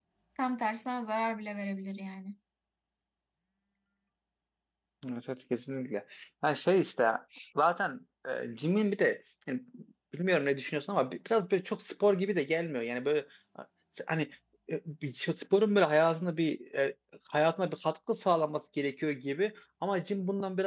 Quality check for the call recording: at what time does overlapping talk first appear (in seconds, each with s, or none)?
none